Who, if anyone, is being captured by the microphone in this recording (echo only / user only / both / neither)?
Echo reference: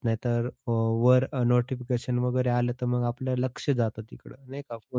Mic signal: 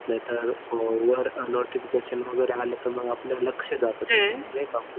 both